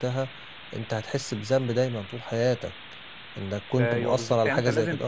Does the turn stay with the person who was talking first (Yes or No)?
No